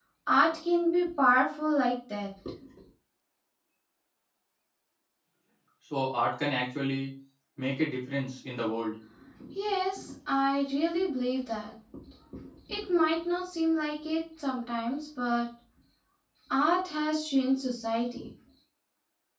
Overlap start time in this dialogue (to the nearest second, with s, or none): none